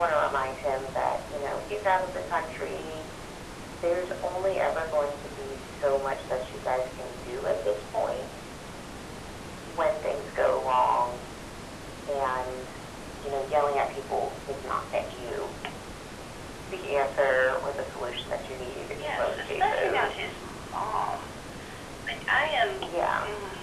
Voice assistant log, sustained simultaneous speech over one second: present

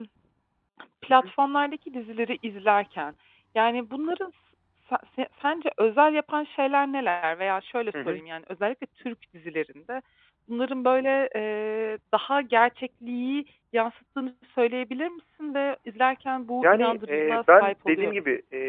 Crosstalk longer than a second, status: present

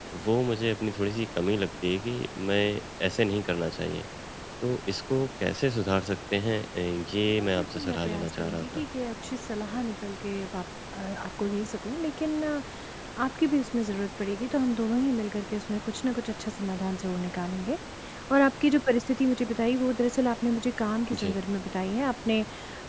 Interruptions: present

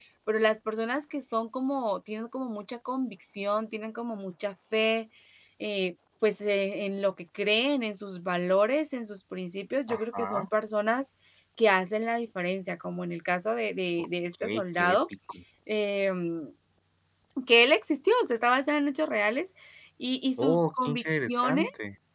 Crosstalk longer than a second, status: present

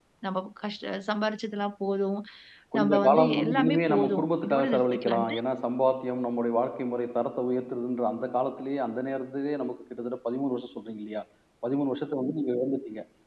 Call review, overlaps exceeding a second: present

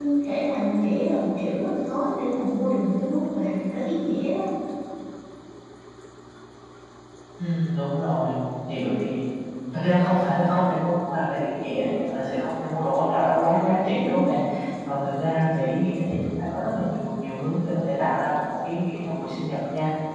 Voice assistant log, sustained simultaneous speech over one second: none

